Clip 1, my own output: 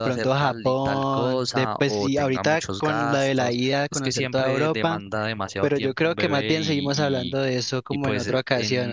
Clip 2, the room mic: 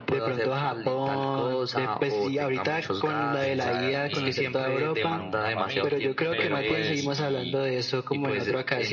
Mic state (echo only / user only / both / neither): both